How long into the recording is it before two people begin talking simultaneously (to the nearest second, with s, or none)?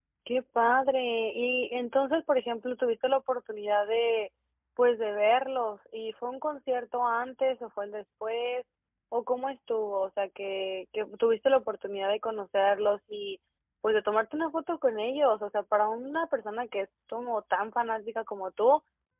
none